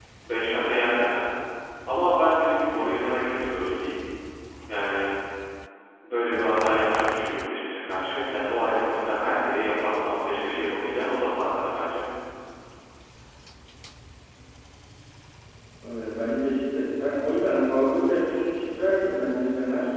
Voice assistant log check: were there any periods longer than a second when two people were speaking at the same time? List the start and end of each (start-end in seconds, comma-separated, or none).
none